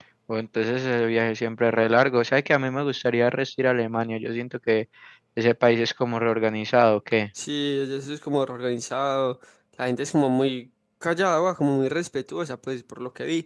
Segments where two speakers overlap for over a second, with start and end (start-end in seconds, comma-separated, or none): none